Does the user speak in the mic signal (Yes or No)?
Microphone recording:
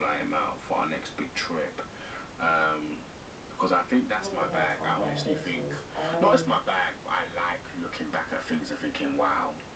Yes